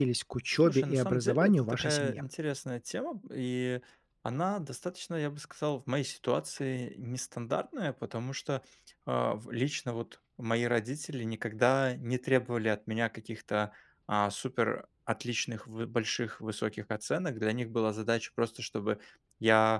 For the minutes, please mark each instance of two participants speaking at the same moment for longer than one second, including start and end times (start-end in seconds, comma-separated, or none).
0.6-2.2